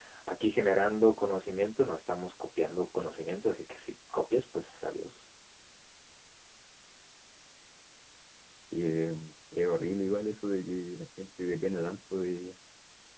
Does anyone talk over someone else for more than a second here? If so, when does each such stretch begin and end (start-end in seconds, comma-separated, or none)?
none